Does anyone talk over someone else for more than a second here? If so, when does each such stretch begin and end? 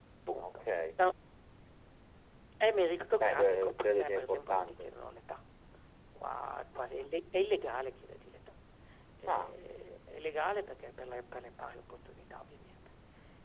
3.3-4.8

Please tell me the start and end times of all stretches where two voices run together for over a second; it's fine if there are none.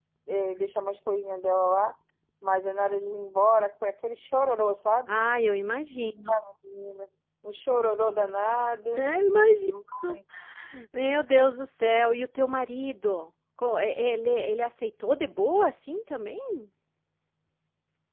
none

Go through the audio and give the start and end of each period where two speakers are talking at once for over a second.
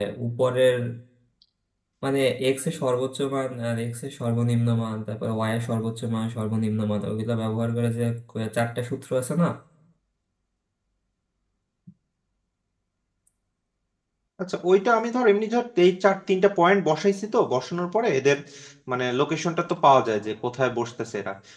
none

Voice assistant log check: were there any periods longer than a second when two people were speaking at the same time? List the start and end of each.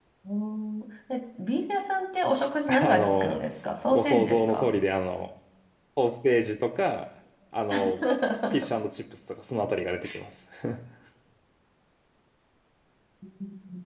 2.8-4.7

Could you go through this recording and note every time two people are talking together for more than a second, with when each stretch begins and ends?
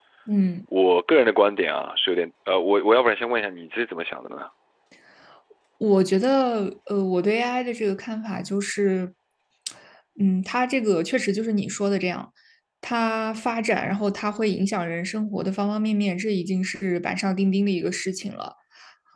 none

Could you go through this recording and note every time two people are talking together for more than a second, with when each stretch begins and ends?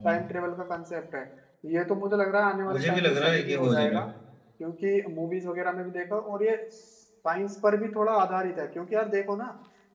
2.7-4.0

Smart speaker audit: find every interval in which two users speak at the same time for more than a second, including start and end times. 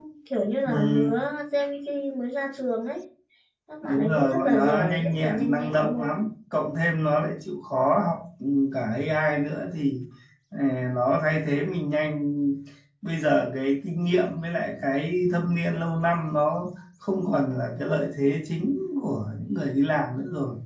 3.8-6.1

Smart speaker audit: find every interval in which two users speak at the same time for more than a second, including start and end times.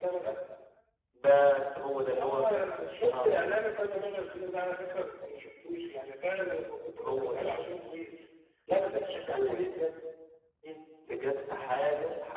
none

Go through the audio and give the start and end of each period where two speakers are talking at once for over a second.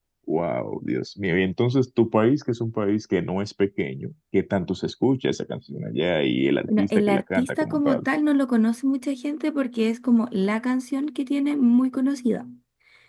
6.8-8.0

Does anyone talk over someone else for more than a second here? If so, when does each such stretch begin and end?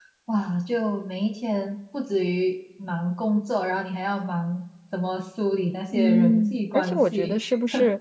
5.9-7.3

